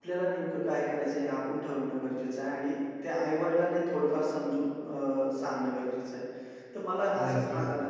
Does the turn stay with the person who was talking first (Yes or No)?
Yes